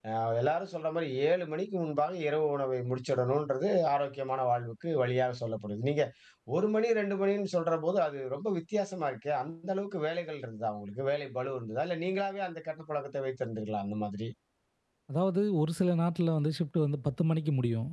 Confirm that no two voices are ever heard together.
Yes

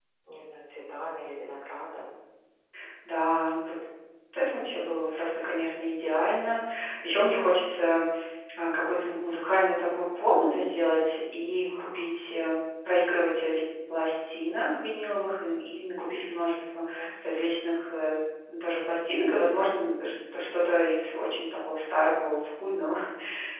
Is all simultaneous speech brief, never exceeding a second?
Yes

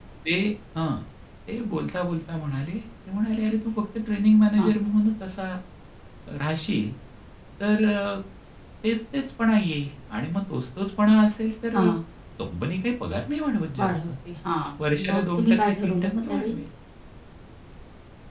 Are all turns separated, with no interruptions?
No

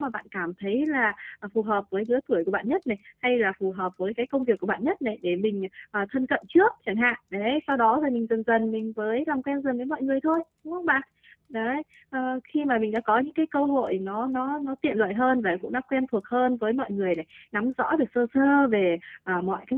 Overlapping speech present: No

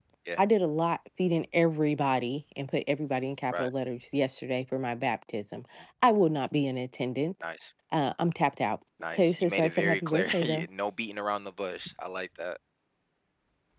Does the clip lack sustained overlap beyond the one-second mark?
No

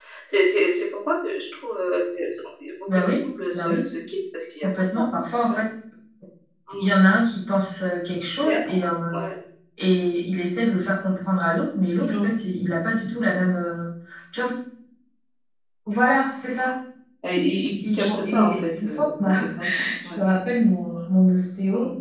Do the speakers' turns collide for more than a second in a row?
Yes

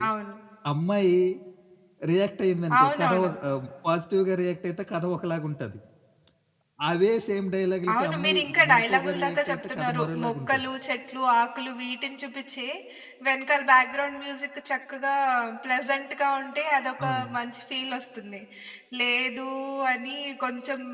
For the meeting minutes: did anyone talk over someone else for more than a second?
Yes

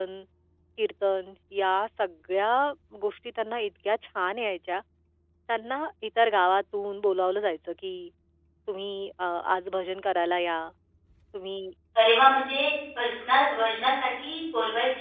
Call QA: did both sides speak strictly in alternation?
Yes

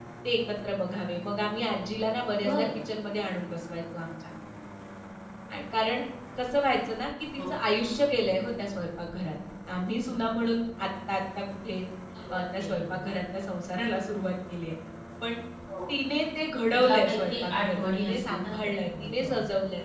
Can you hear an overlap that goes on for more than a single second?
Yes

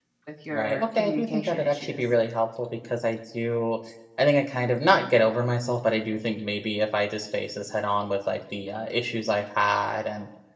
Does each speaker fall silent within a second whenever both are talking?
No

